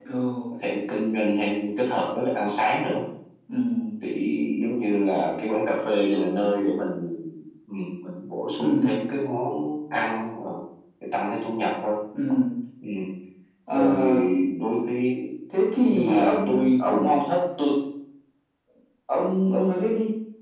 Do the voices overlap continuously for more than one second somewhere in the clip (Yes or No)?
Yes